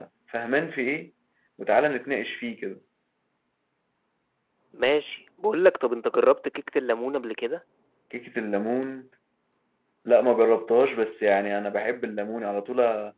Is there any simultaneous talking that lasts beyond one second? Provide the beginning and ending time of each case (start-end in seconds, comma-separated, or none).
none